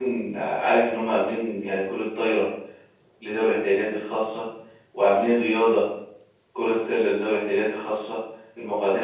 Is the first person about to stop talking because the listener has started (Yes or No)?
No